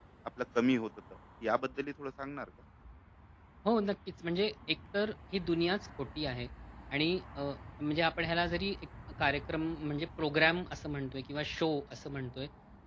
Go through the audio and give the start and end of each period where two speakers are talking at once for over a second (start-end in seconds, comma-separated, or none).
none